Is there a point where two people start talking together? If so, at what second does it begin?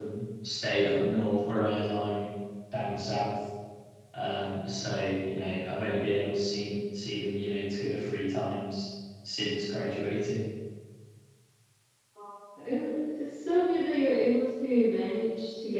none

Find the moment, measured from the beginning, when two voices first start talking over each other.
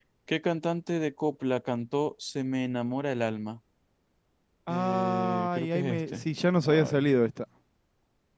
5 s

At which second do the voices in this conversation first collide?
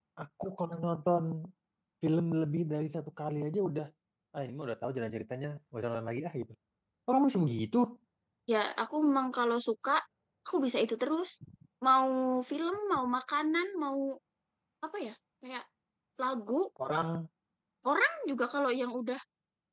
none

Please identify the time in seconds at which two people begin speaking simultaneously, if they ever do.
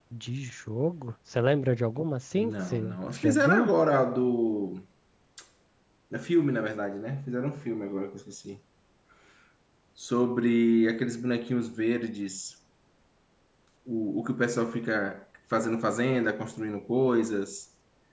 2 s

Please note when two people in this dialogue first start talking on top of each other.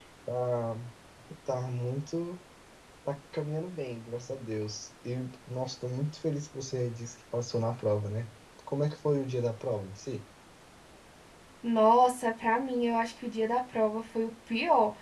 none

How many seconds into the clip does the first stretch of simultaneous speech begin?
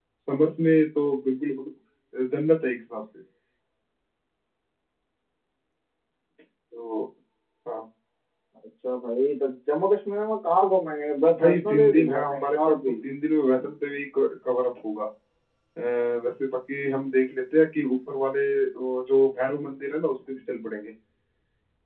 11 s

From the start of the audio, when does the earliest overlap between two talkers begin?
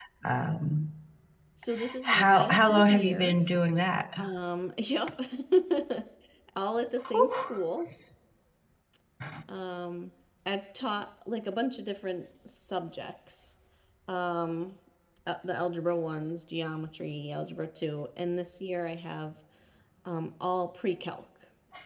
2 s

